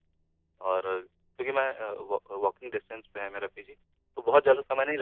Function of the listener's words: listening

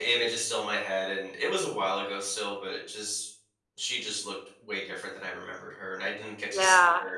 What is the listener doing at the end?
taking over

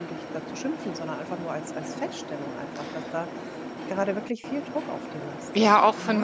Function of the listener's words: taking over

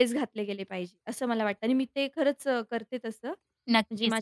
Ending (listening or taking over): taking over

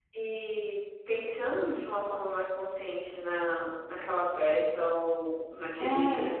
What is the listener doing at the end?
listening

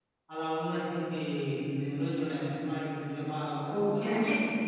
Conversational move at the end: taking over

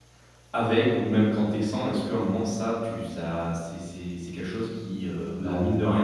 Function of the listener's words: listening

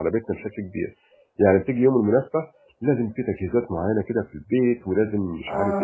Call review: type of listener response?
listening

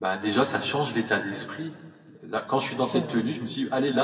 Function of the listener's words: listening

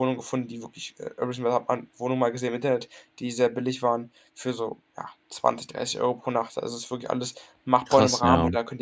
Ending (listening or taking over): listening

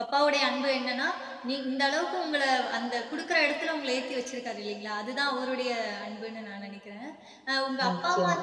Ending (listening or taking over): listening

